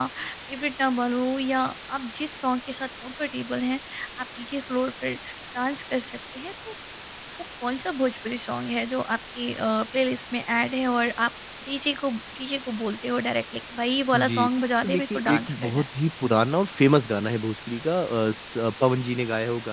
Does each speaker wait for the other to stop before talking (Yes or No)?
No